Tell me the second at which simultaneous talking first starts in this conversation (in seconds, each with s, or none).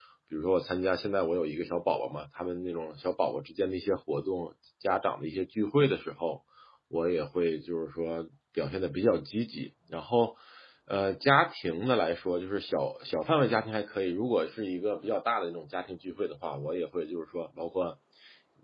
none